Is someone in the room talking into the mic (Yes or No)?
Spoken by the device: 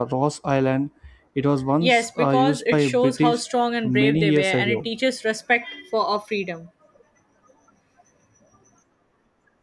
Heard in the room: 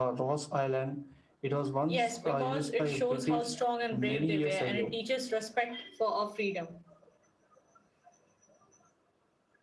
No